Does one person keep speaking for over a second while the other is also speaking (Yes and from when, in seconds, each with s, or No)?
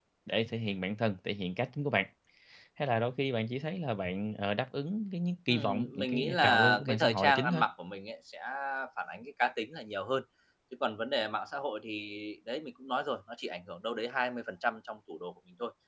Yes, from 5.5 s